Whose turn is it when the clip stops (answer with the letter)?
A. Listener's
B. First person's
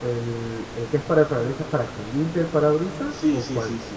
A